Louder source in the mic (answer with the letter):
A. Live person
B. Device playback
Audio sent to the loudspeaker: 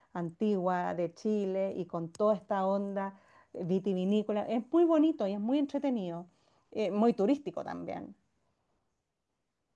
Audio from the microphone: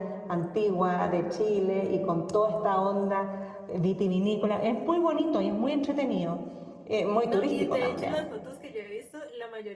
B